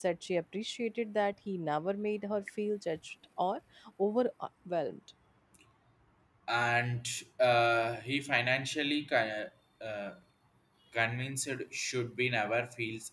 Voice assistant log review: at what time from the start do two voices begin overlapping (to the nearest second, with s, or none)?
none